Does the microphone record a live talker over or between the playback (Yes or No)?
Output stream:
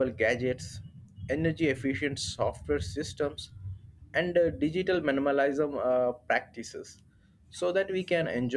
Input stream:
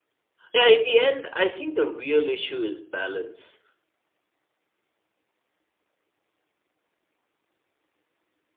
Yes